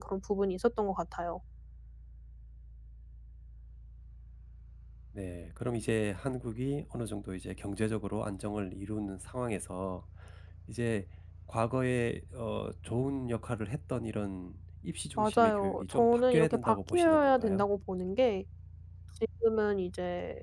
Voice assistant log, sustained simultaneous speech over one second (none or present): present